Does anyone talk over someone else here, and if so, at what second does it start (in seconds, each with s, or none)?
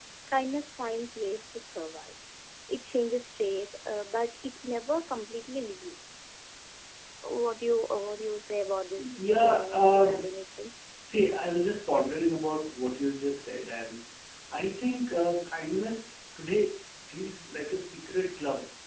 8.9 s